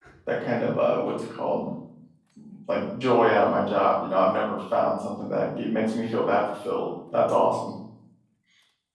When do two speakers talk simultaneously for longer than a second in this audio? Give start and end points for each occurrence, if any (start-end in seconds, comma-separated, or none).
none